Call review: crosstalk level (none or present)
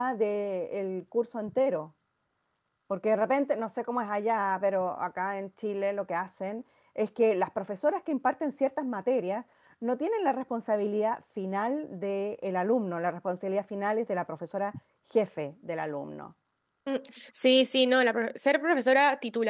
none